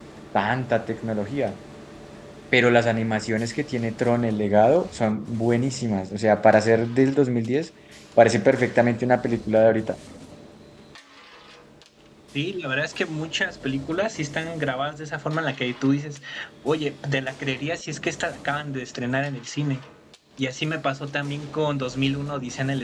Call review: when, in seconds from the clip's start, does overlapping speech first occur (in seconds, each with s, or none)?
none